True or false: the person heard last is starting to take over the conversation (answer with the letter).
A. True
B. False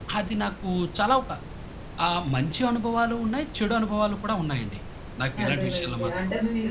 A